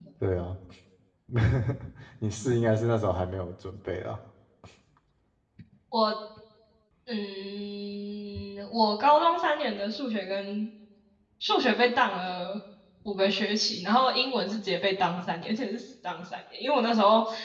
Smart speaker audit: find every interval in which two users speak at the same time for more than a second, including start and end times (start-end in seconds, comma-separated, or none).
none